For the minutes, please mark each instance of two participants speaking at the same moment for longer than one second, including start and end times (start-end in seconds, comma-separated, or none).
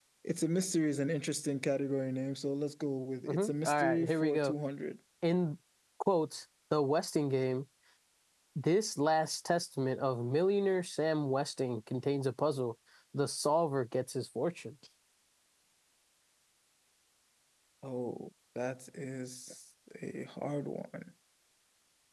3.3-4.5